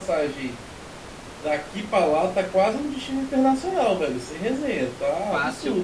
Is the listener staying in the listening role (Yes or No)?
No